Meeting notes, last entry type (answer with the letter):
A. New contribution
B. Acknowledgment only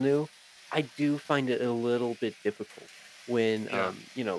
B